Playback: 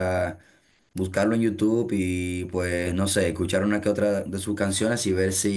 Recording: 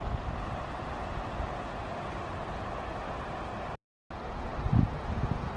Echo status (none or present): none